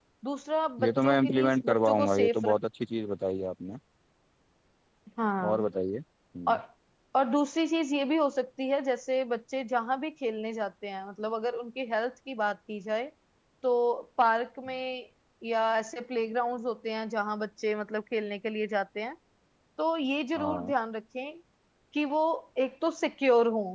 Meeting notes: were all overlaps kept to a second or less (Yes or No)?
No